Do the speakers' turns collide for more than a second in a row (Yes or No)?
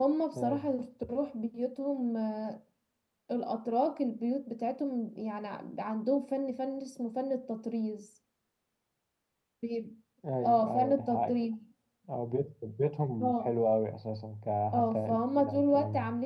Yes